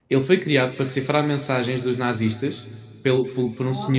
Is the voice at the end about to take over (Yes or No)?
No